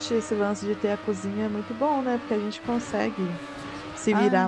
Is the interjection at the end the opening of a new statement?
Yes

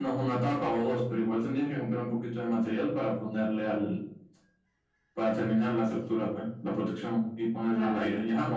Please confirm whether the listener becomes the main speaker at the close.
No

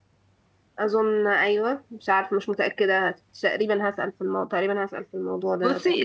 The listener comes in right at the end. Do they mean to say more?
Yes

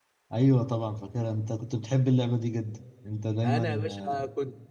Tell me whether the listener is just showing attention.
No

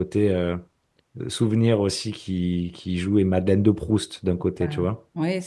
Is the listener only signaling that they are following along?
No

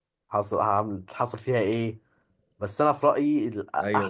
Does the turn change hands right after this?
Yes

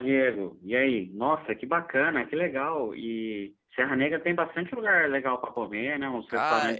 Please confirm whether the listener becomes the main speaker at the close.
Yes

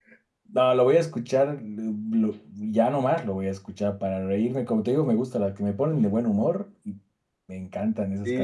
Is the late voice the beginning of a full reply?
Yes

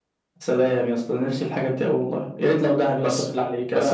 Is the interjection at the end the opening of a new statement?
Yes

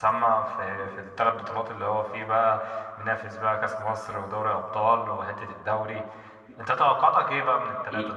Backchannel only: Yes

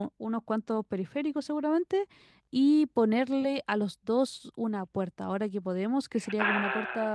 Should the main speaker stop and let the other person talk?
No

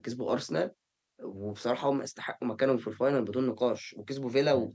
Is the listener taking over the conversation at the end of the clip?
Yes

